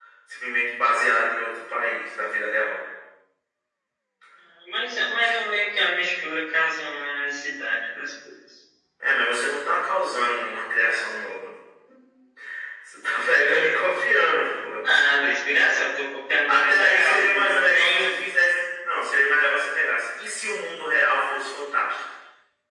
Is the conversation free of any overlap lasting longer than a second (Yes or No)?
No